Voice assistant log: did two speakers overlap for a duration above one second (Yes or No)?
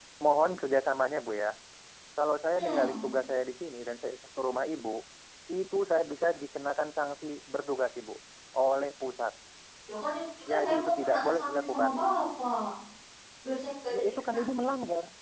Yes